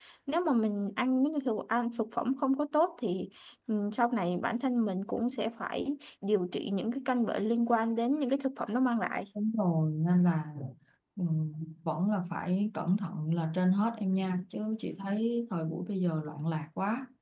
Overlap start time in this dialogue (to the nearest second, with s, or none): none